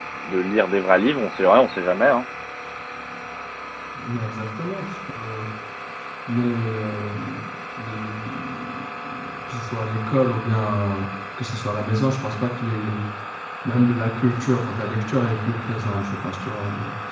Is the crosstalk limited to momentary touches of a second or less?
Yes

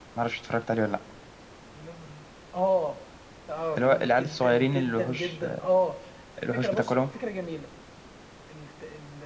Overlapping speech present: Yes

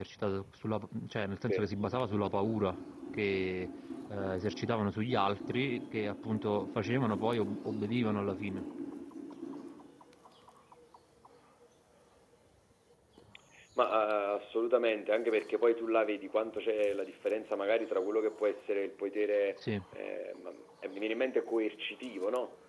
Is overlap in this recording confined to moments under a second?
Yes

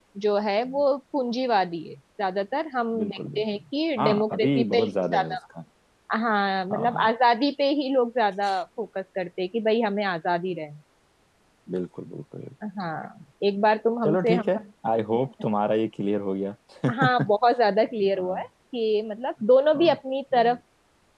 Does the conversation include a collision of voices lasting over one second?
Yes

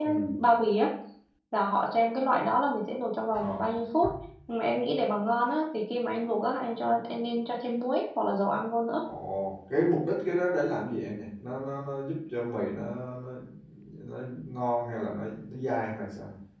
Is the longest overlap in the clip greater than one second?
No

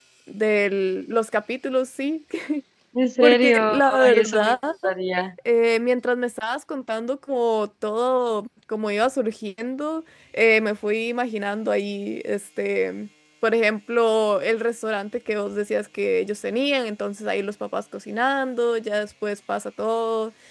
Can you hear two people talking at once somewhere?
Yes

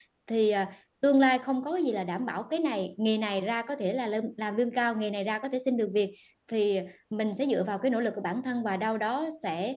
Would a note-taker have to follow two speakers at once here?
No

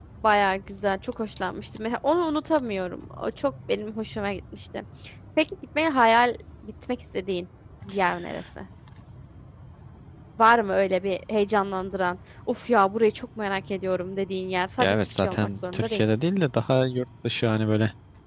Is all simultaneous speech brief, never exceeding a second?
No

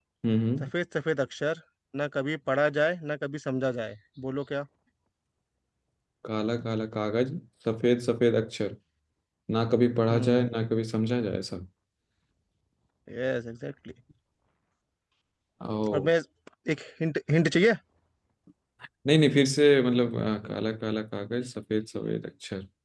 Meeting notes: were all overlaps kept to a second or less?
Yes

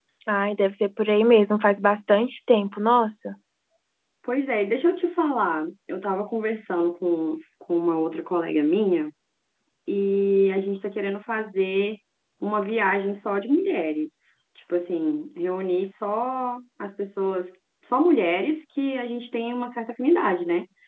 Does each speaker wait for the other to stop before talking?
Yes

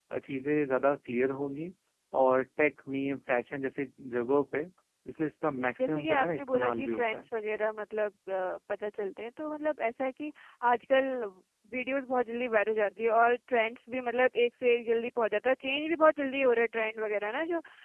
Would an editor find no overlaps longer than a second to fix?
No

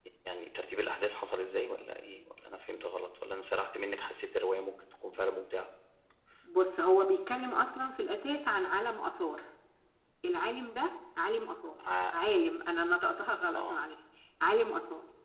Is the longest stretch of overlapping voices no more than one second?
Yes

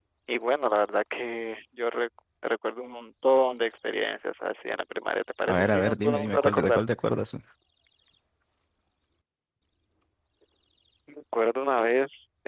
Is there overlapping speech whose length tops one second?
Yes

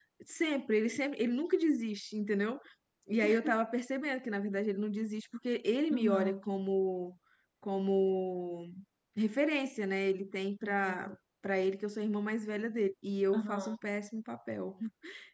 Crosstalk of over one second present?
No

